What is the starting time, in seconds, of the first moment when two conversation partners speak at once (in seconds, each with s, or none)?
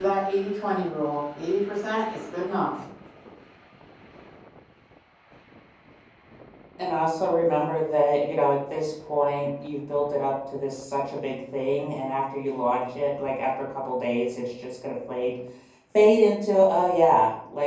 none